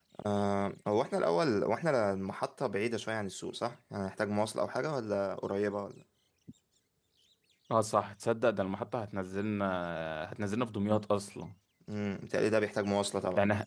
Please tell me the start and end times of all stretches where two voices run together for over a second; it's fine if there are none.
none

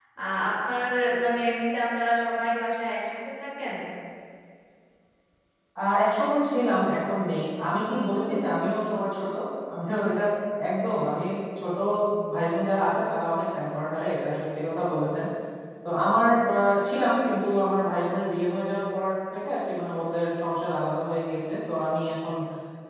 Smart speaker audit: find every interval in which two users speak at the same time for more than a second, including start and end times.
none

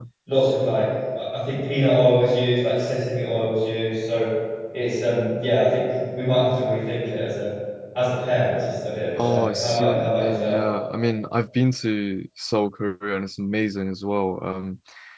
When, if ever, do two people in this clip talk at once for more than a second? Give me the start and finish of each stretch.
9.2-10.6

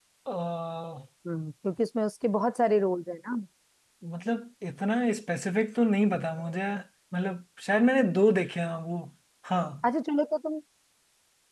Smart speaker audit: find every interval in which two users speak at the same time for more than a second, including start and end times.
none

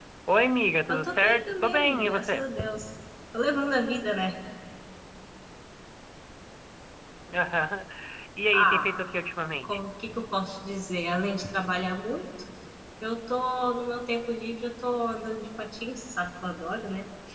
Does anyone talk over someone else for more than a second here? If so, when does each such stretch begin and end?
0.9-2.5

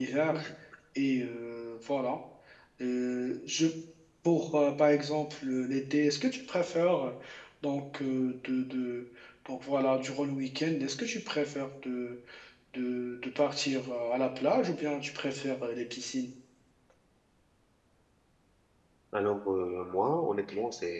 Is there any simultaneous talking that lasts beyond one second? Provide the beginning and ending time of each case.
none

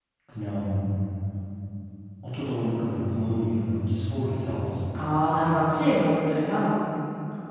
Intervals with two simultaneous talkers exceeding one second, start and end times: none

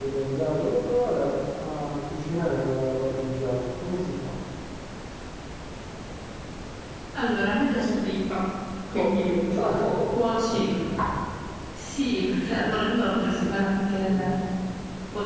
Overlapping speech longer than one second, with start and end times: none

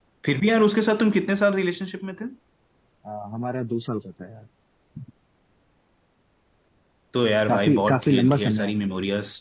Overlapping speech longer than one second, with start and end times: 7.5-8.7

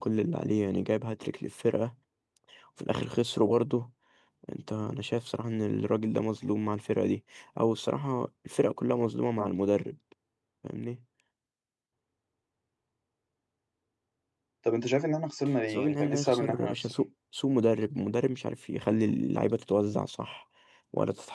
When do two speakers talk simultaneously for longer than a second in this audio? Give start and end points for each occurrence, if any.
15.7-16.9

